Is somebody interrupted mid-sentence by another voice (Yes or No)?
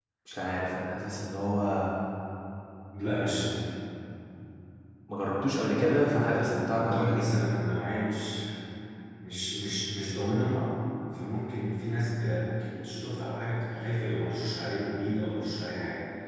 Yes